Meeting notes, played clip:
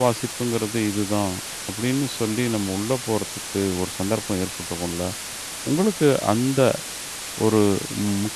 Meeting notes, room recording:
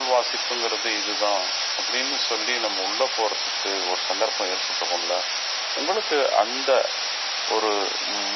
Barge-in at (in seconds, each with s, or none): none